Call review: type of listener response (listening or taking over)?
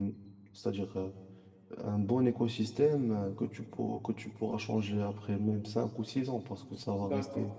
taking over